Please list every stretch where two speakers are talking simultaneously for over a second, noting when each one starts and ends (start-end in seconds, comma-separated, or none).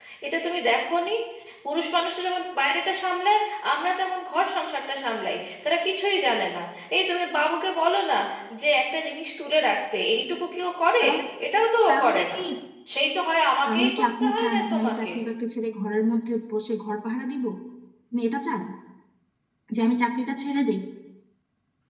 13.7-15.1